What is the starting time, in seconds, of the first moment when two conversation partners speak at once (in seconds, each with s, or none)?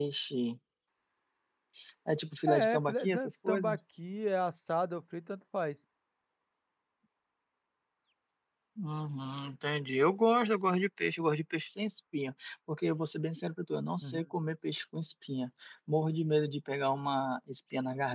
2.5 s